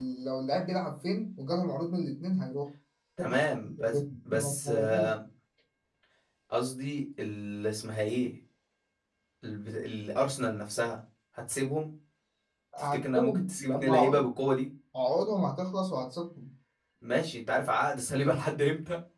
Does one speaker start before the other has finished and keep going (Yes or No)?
Yes